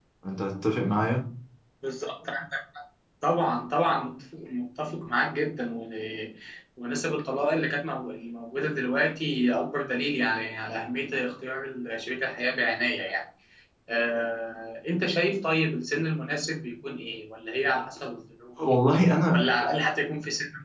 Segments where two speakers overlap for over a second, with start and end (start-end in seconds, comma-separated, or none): none